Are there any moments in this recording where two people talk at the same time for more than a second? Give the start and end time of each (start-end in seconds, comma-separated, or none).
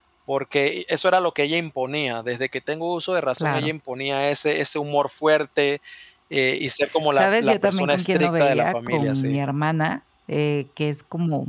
7.1-9.4